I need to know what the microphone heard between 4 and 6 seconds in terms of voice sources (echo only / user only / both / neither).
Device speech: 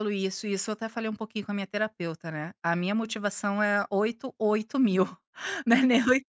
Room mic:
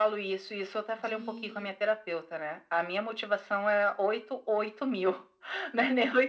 echo only